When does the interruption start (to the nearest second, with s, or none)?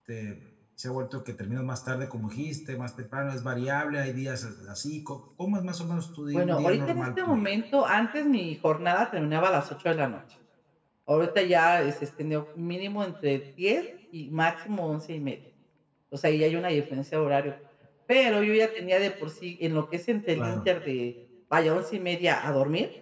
6 s